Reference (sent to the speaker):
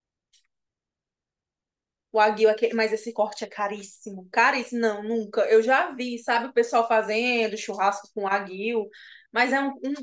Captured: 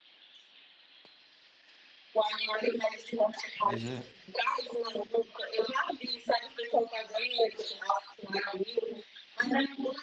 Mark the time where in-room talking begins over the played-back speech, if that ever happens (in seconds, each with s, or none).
3.6 s